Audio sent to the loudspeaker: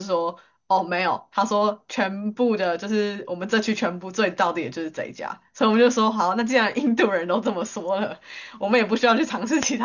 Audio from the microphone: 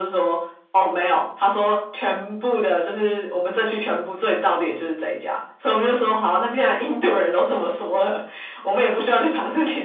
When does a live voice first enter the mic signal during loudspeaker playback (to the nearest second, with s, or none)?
none